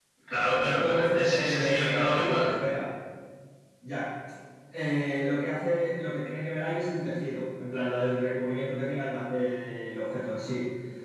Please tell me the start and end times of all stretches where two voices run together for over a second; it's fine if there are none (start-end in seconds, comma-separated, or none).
0.6-2.5